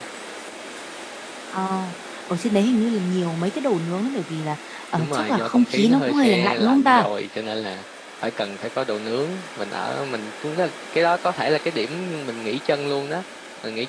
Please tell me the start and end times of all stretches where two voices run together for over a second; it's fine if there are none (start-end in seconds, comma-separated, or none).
5.0-7.1